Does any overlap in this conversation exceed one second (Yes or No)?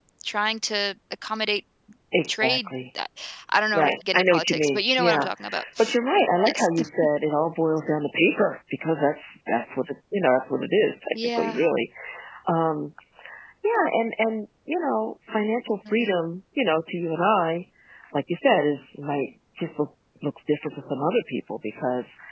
Yes